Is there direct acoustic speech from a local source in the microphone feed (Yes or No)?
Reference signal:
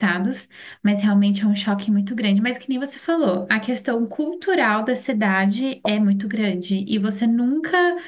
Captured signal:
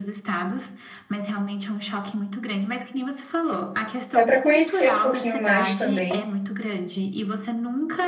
Yes